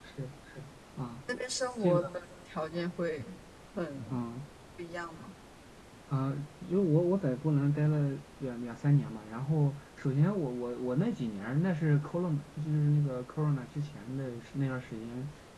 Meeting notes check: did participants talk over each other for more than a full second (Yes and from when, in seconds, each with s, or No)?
No